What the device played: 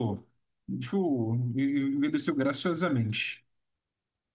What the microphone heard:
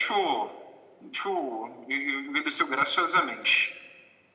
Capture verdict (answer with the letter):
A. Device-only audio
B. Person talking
A